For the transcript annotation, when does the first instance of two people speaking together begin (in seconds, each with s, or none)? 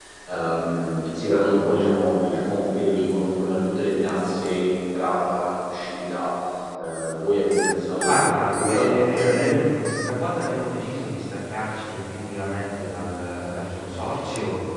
8.0 s